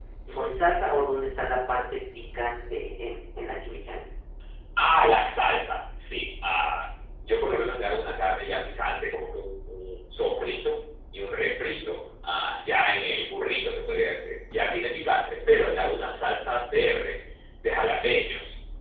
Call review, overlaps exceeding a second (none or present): none